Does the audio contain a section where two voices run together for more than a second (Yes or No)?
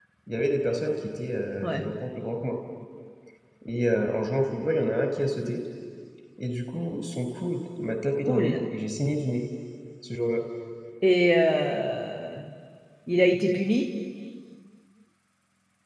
No